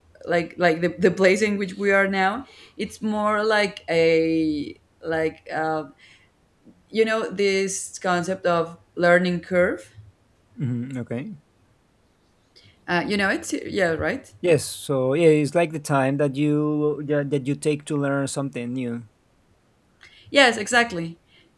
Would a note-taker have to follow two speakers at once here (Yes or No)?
No